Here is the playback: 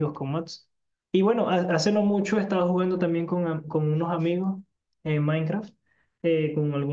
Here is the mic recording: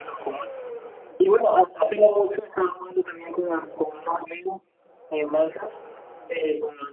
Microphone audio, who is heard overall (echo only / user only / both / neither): echo only